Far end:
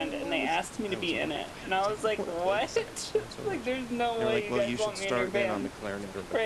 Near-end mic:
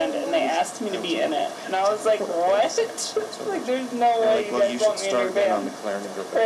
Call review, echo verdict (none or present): present